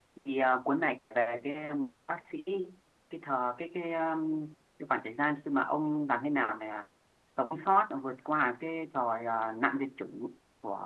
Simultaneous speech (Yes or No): No